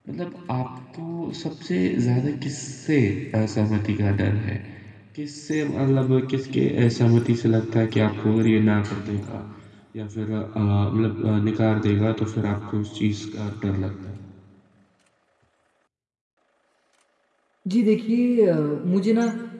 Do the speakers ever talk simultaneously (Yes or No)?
No